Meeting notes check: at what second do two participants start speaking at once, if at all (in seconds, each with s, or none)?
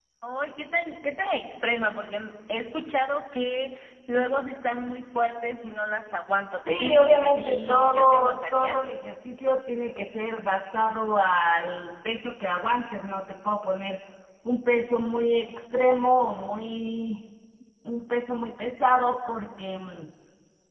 6.7 s